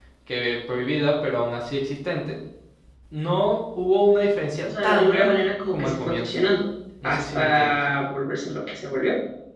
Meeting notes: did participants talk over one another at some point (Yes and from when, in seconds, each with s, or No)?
Yes, from 4.6 s